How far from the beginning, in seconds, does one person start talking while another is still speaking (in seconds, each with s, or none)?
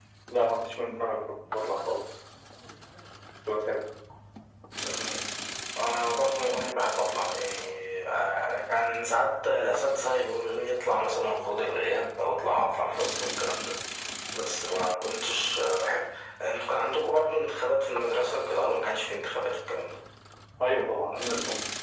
none